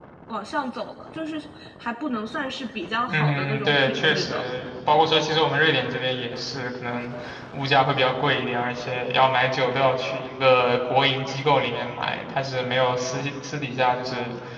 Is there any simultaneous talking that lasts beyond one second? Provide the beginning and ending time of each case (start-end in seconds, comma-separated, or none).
3.1-4.4